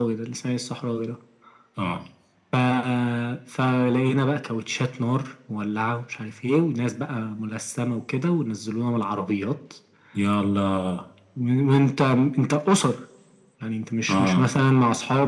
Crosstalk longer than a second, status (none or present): none